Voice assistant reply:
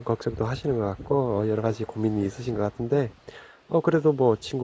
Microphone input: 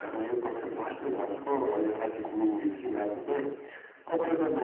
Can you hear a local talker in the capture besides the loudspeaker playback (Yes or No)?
Yes